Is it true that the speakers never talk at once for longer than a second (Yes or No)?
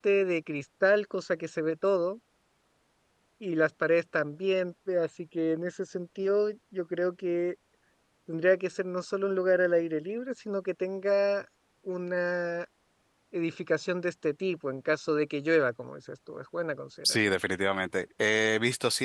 Yes